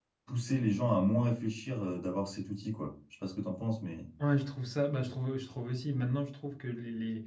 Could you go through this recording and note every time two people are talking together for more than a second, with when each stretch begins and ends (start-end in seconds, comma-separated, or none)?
none